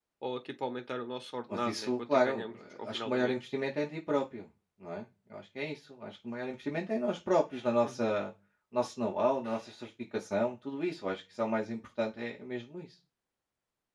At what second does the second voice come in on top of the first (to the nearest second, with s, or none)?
2 s